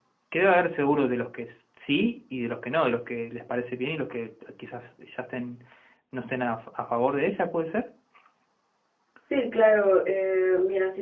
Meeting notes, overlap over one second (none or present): none